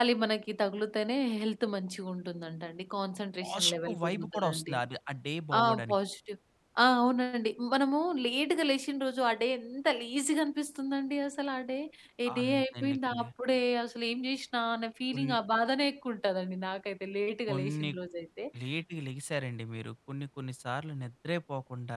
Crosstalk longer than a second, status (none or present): present